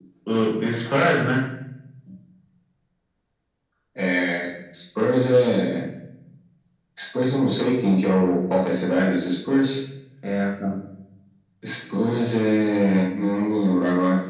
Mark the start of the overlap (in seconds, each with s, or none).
none